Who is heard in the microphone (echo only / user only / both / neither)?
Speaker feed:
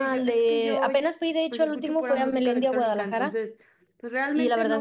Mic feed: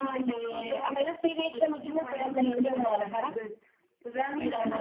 echo only